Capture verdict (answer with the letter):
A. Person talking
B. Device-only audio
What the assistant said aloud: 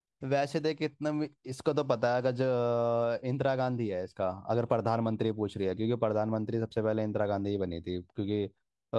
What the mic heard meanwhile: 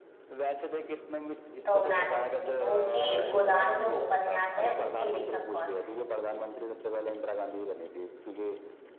A